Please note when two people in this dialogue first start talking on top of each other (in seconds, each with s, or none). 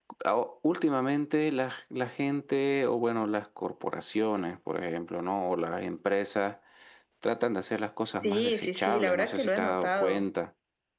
8.2 s